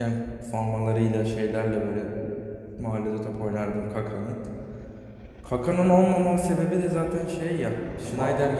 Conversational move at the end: listening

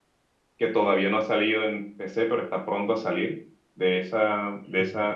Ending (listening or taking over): listening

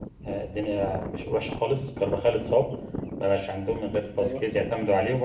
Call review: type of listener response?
listening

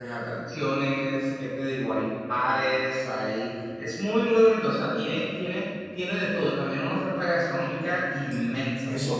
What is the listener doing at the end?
taking over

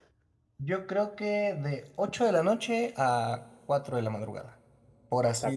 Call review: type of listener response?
taking over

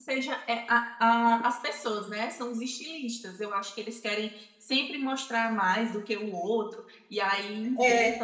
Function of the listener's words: taking over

